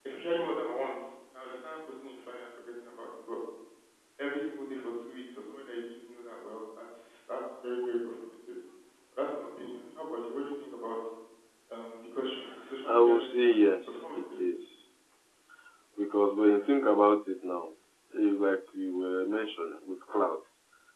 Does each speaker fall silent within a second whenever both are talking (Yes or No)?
No